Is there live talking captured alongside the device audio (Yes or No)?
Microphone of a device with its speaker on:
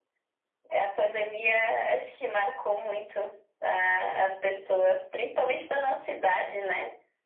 No